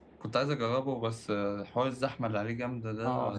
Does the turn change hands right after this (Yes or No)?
Yes